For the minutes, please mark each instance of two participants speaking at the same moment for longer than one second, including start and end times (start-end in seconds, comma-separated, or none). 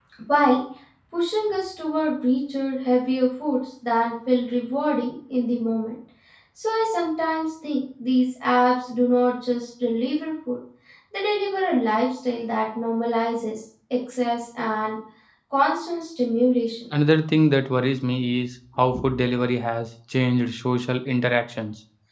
none